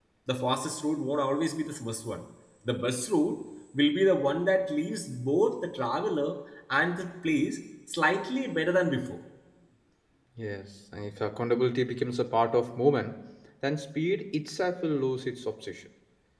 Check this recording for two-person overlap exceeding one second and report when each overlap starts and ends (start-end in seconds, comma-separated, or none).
none